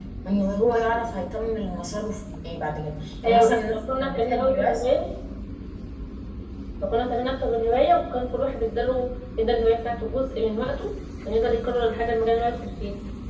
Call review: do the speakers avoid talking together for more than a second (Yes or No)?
No